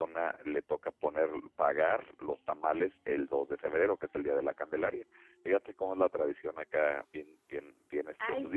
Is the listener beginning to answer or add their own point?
Yes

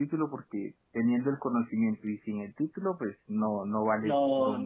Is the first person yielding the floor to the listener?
Yes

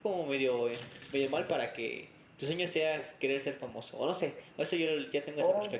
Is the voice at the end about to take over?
Yes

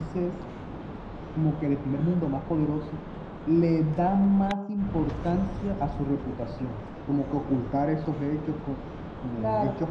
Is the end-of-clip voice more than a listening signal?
No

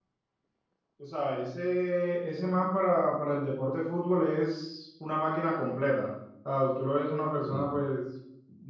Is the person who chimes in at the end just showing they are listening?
Yes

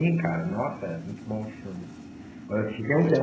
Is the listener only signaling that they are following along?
Yes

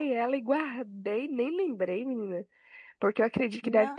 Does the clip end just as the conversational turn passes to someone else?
No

